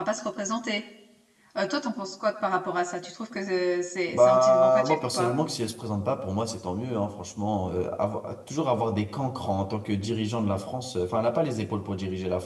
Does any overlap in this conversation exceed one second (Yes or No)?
Yes